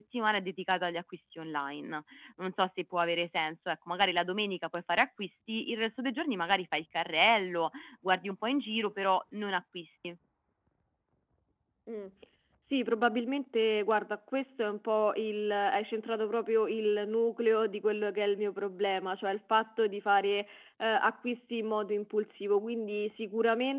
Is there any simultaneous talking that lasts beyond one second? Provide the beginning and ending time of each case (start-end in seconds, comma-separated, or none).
none